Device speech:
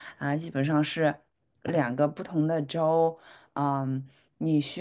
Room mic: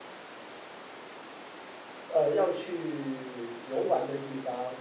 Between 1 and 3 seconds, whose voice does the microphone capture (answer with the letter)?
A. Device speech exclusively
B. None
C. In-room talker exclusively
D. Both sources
C